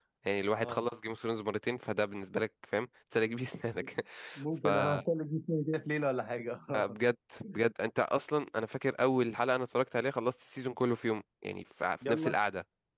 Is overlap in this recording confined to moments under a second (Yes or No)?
Yes